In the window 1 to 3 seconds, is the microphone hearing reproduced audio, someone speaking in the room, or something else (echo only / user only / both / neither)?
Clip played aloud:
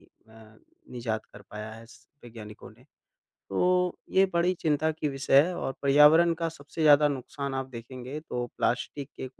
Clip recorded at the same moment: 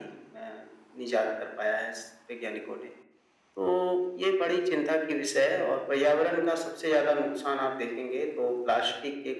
echo only